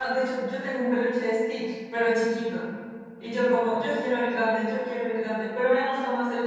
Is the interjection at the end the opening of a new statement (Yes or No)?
No